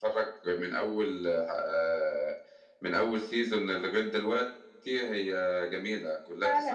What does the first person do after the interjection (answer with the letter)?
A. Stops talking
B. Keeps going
A